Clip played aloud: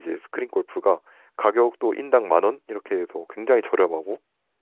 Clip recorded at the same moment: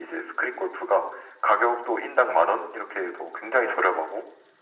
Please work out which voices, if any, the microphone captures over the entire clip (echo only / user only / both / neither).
echo only